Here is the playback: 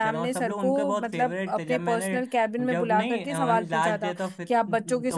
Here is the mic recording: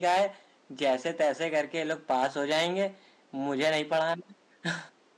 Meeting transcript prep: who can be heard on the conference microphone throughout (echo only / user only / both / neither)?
user only